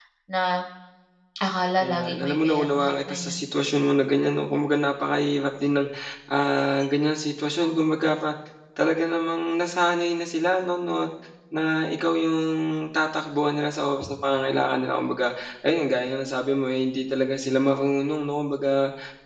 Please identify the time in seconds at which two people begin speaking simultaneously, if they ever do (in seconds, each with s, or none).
1.8 s